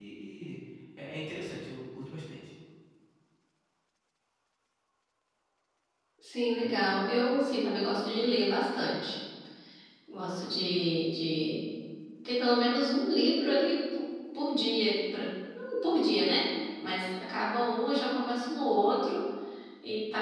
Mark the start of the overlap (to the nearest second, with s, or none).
none